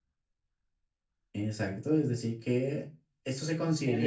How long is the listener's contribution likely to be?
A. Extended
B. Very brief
A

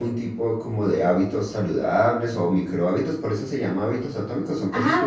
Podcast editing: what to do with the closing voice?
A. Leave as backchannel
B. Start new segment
B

